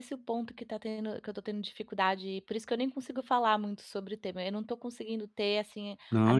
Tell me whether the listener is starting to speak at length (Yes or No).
No